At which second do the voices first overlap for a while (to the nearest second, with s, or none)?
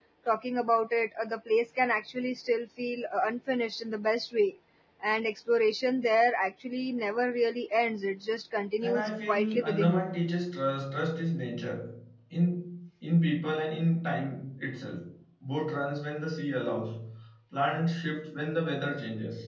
9 s